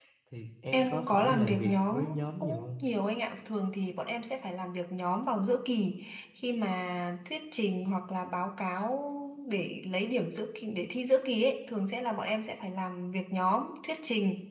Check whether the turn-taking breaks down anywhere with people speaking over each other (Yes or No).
Yes